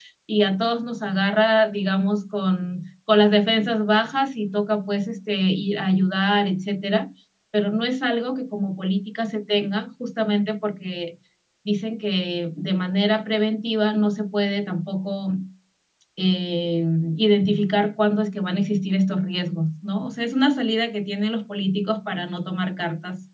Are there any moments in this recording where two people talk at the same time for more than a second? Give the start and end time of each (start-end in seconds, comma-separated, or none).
none